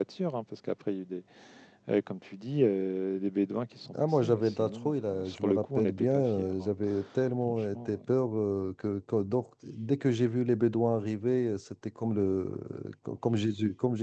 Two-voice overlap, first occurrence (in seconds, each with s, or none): 4.2 s